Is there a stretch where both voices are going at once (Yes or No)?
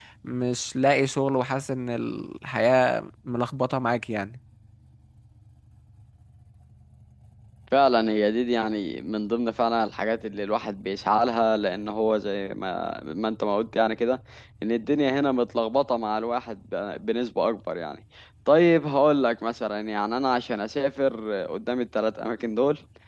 No